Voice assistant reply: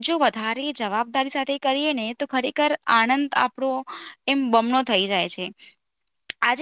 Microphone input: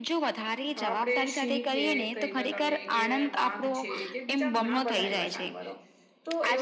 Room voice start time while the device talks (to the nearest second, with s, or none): 1 s